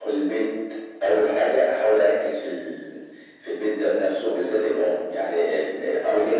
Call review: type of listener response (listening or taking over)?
listening